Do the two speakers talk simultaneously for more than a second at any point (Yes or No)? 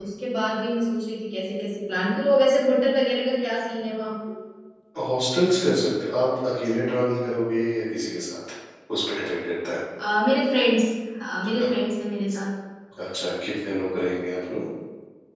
No